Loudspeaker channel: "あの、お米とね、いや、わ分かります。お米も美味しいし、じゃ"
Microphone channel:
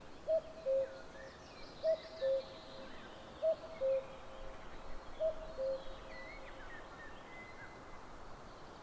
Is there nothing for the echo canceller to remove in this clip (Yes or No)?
Yes